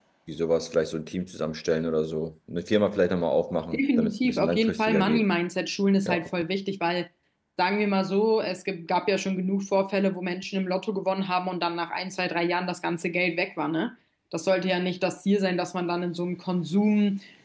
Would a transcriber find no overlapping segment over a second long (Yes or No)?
No